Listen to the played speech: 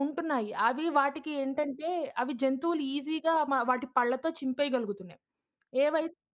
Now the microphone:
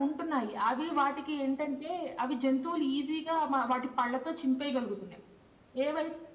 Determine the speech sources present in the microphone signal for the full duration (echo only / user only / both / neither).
echo only